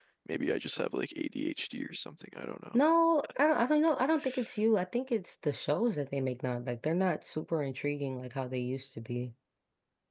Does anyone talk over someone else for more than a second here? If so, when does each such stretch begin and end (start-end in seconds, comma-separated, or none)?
none